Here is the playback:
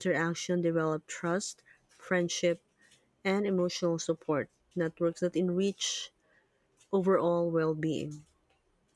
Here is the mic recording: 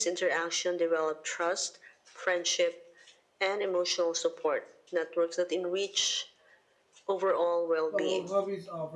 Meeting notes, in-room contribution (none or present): present